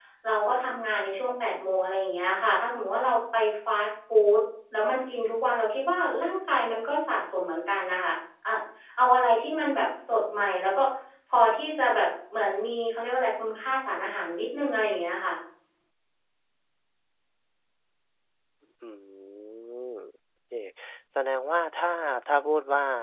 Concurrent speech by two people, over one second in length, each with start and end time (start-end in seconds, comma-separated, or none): none